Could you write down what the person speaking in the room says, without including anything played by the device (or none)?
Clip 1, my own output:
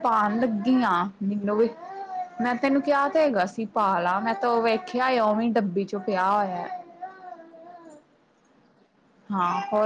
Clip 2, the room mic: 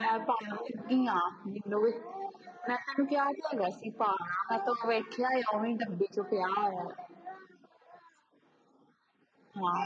none